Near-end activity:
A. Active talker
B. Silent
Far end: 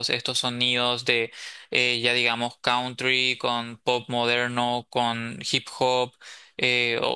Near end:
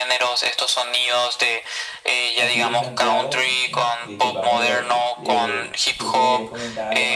A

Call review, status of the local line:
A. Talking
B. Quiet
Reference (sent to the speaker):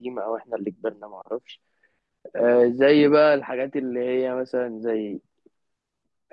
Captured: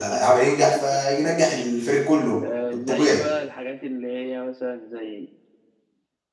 A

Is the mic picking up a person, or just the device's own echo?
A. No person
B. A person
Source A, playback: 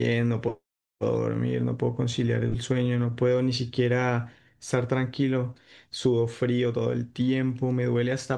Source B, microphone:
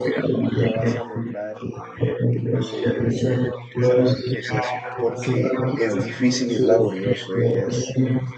B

